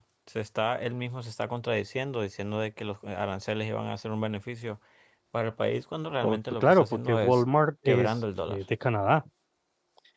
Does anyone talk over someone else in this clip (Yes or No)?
Yes